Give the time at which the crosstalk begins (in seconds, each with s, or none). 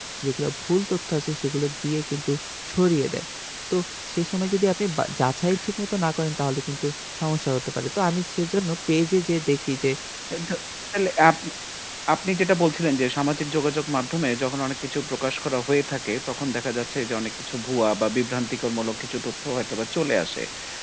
none